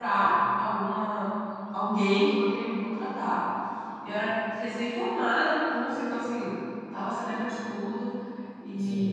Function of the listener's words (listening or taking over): listening